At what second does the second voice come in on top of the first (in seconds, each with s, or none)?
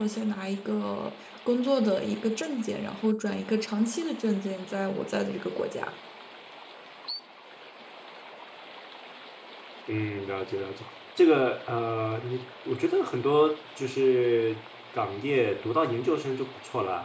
none